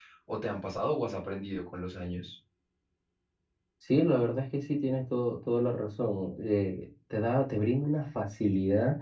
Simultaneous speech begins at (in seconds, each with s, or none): none